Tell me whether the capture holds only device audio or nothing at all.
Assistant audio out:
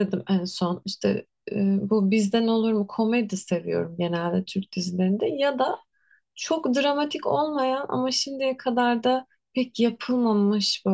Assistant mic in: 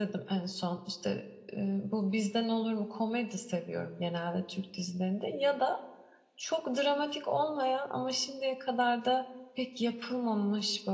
Yes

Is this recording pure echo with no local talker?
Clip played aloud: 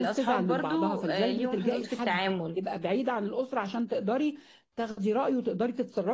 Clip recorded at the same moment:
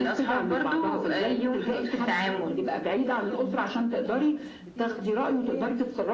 No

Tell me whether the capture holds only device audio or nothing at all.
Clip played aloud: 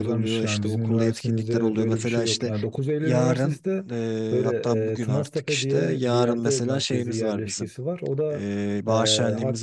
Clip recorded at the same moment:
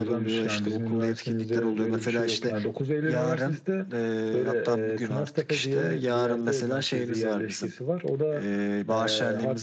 Yes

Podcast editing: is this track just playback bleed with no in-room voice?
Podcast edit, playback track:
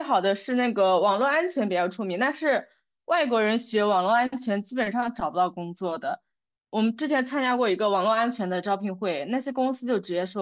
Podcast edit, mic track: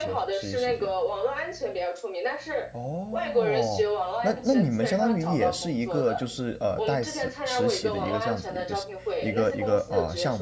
No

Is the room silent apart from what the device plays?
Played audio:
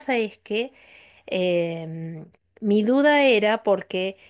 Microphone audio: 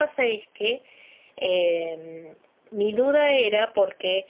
No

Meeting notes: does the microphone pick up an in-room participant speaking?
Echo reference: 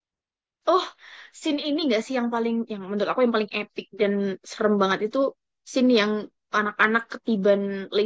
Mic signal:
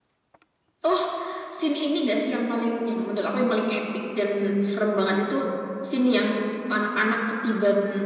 No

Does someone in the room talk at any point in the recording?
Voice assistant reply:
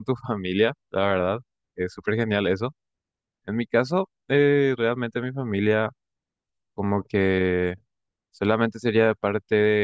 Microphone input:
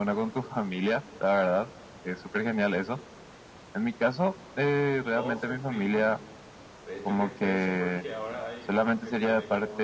Yes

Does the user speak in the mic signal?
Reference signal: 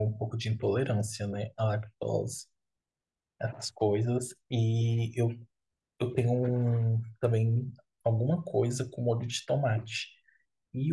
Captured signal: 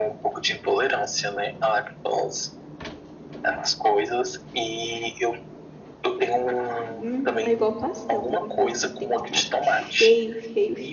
Yes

